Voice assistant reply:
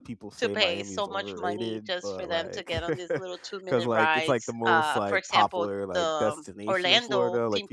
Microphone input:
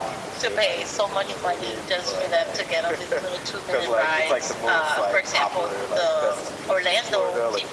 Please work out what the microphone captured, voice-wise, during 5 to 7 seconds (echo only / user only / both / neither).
echo only